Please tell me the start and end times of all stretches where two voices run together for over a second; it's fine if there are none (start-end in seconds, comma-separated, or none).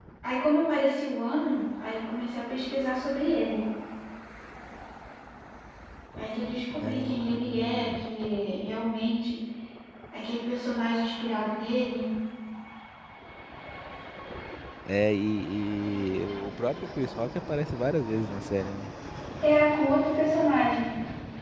6.8-8.0